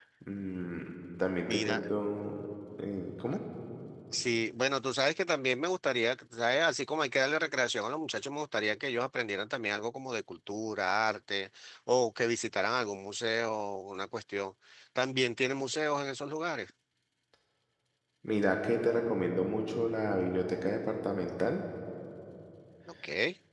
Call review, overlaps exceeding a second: none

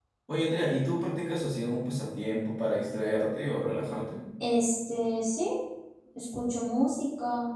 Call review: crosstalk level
none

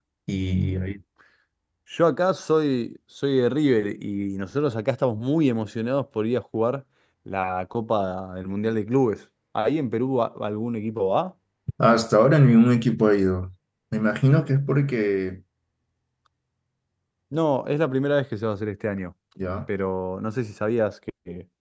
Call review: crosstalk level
none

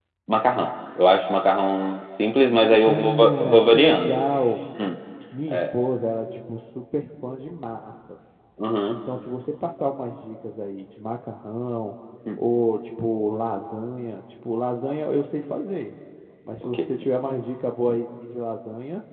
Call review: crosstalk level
present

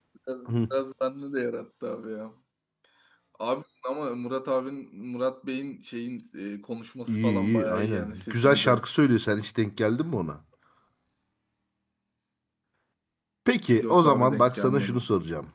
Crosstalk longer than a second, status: present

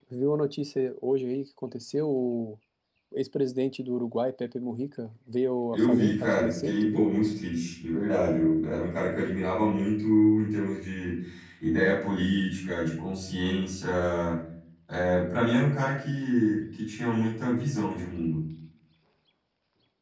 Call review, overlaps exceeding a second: present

